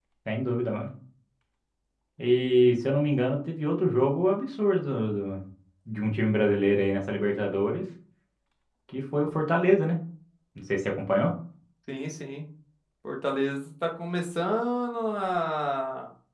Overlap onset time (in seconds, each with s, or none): none